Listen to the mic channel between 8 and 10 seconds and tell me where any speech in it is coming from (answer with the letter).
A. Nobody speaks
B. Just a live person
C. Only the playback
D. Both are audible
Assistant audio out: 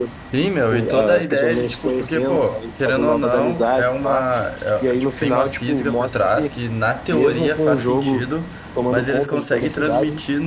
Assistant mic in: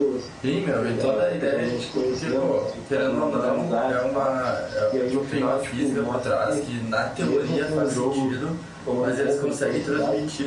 C